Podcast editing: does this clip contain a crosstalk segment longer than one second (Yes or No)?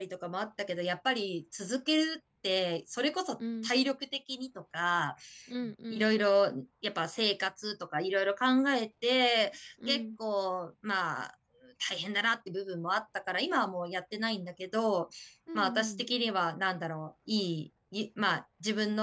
No